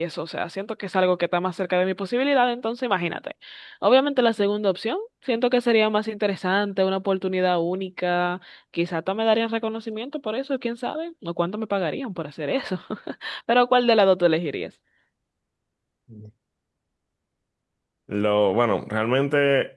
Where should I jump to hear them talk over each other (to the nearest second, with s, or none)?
none